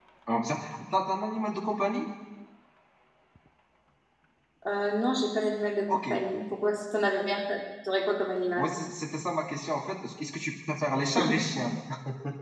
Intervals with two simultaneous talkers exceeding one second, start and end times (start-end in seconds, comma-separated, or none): none